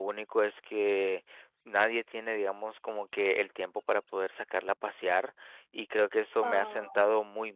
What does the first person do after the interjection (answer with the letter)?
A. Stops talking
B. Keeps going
B